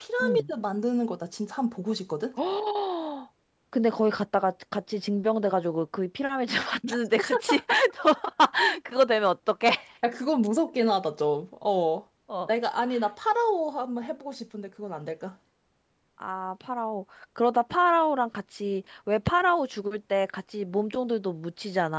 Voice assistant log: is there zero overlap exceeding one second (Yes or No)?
Yes